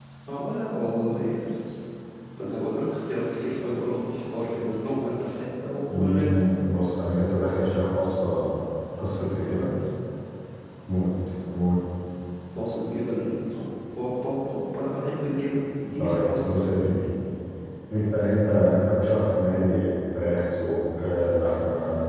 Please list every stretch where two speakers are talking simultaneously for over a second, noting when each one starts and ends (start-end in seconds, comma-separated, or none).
none